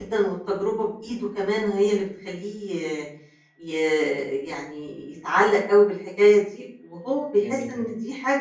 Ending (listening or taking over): listening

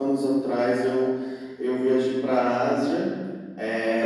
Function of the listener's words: listening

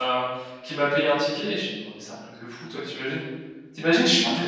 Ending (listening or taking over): listening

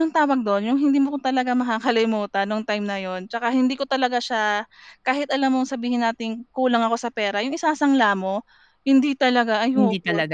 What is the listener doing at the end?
listening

